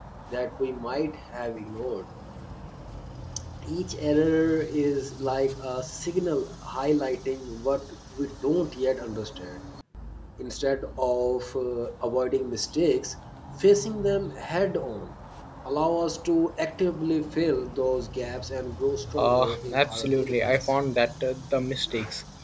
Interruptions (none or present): present